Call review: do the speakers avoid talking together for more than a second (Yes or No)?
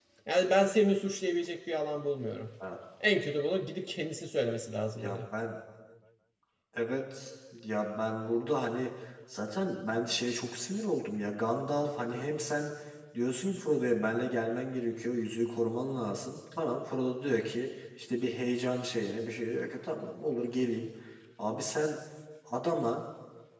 Yes